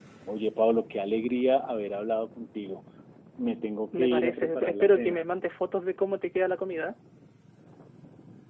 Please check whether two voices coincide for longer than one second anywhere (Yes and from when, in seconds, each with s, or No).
Yes, from 3.9 s